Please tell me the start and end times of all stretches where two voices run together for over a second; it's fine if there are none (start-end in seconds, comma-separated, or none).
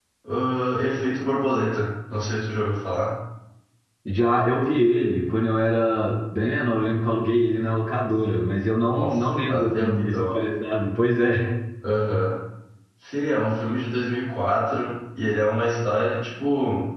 8.9-10.4